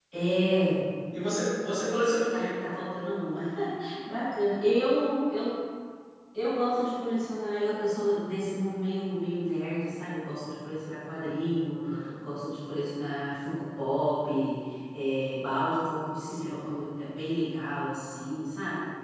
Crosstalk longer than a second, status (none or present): none